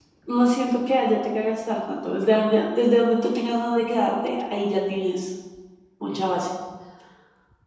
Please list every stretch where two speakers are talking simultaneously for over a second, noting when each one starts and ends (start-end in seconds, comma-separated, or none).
none